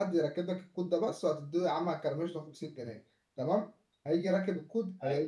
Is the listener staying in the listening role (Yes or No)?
Yes